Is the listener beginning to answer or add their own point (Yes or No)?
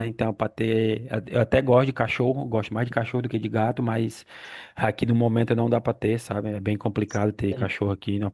No